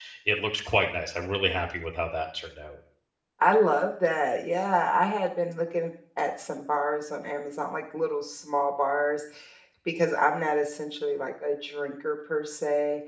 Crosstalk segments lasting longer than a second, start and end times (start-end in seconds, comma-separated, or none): none